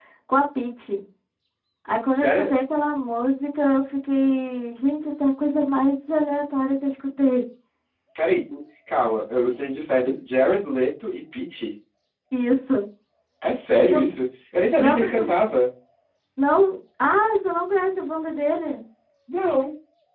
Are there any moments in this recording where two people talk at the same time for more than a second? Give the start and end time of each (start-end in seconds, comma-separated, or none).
none